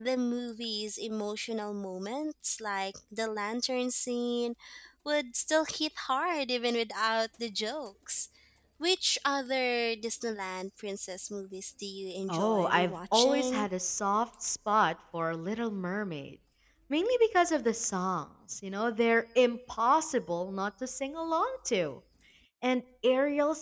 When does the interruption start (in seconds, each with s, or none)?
12.3 s